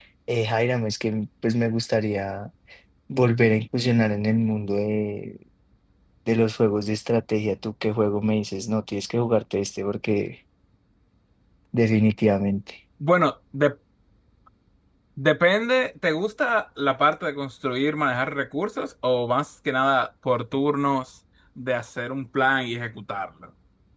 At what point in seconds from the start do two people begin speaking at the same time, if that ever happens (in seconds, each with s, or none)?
none